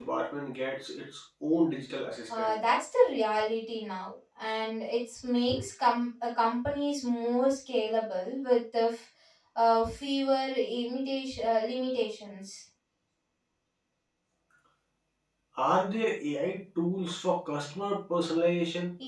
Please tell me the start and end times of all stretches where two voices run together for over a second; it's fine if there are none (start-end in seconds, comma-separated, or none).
none